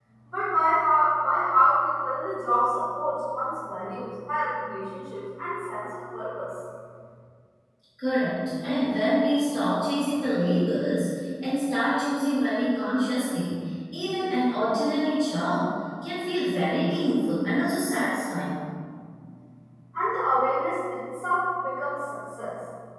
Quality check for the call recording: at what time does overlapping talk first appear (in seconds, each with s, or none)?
none